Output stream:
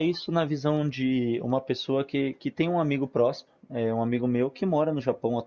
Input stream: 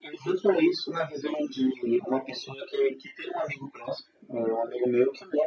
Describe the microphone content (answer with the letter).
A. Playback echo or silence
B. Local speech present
A